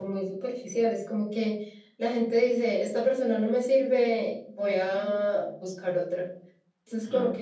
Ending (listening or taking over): listening